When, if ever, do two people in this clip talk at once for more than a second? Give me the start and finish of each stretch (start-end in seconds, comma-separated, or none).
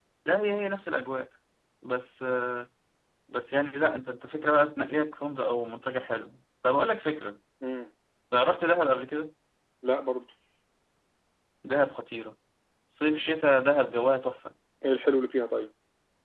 none